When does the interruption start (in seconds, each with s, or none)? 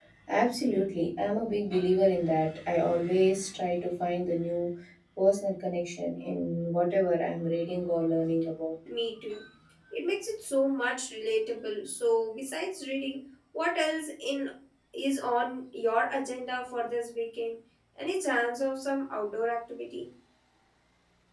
none